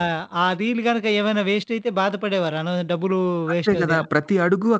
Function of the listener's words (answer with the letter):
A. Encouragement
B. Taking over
B